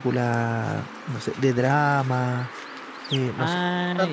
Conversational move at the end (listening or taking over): listening